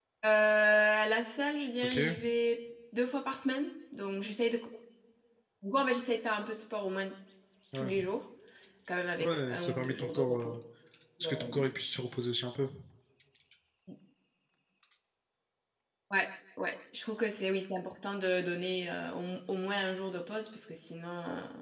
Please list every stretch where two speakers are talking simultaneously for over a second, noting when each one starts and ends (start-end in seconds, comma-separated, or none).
9.2-10.5